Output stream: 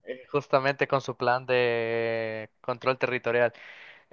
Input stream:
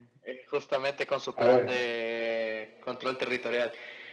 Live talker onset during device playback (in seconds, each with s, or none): 1.4 s